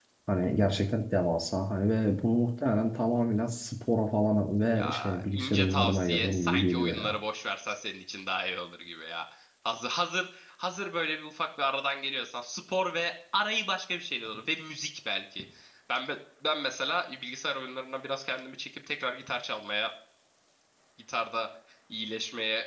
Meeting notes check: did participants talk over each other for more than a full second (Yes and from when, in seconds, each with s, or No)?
Yes, from 4.7 s